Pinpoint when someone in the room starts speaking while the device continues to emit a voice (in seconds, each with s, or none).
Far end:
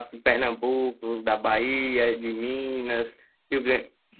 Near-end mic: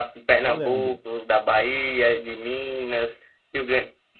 0.4 s